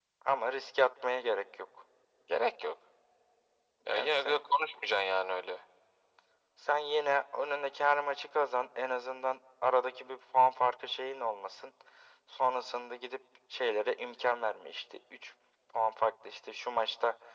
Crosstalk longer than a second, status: none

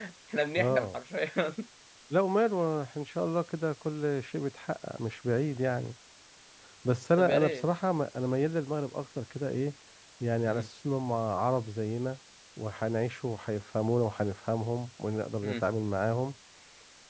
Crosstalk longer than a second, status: none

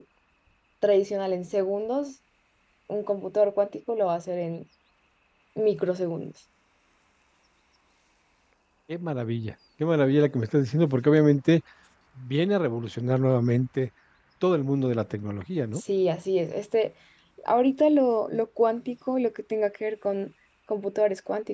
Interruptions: none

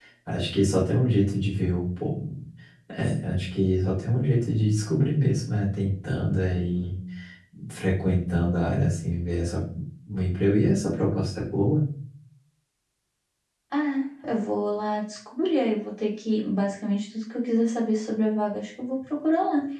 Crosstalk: none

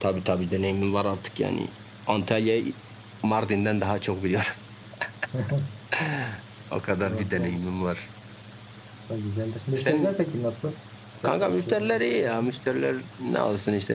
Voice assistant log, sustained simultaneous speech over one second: present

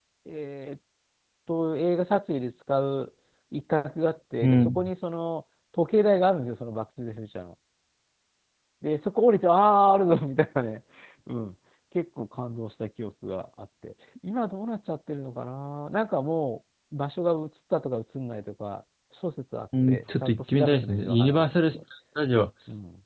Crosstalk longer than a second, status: present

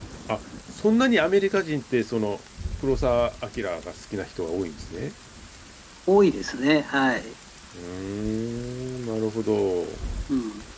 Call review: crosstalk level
none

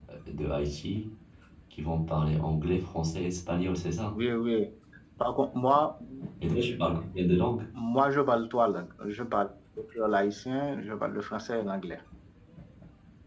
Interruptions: none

